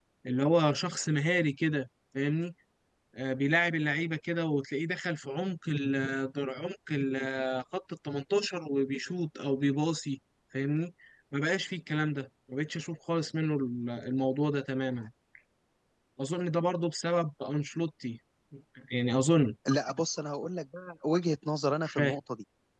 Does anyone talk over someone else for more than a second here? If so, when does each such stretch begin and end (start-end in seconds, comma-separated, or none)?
none